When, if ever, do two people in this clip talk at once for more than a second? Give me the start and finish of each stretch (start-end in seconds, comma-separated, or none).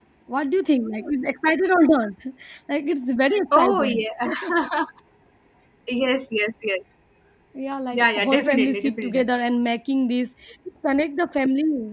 7.9-9.3